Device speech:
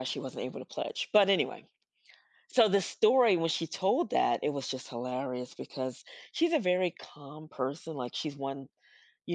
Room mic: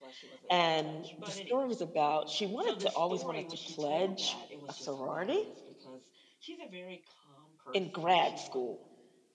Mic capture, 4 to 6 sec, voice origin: both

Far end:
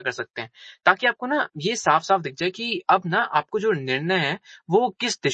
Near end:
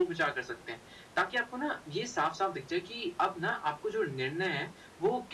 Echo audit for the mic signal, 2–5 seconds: echo only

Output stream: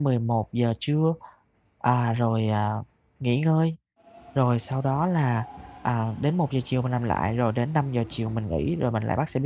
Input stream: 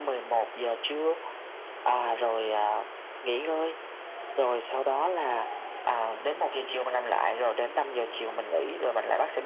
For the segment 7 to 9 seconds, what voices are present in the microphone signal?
echo only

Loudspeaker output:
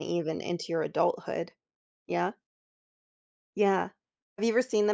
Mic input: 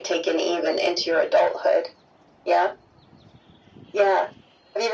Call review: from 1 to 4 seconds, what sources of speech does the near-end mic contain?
echo only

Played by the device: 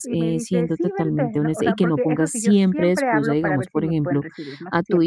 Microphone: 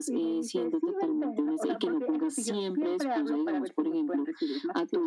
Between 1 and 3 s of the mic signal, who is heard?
echo only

